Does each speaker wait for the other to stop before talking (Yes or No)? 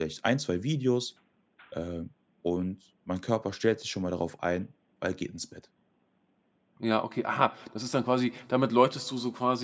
Yes